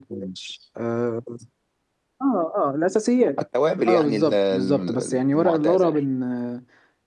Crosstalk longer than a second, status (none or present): present